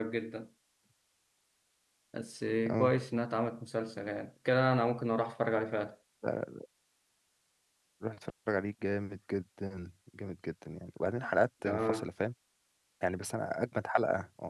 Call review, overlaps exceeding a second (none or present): none